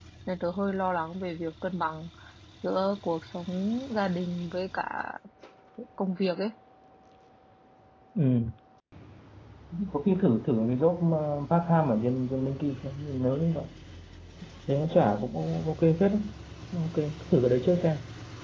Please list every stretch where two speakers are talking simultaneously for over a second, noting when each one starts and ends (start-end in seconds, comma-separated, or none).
none